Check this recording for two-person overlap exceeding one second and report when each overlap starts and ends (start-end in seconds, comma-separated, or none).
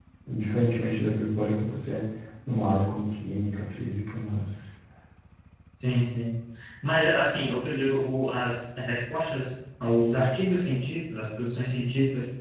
none